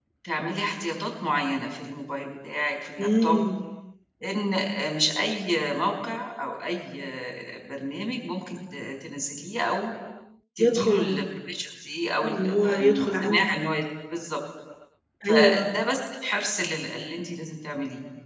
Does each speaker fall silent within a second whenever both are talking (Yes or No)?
No